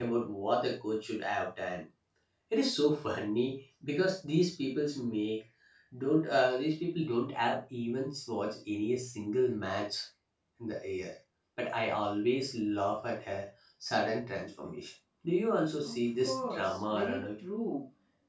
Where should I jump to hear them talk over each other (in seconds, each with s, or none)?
15.8 s